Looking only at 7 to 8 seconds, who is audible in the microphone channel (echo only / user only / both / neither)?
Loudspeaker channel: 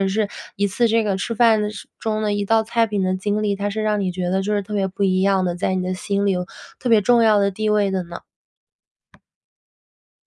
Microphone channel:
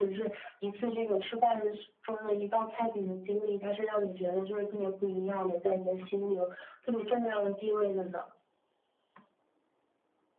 echo only